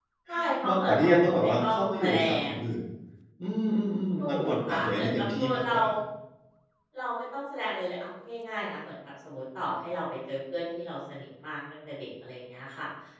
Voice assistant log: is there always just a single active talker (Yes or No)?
No